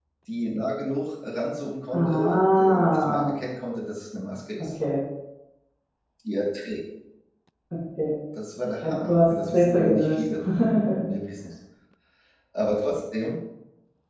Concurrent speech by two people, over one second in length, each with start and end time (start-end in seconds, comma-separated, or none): 1.9-3.3, 8.8-10.2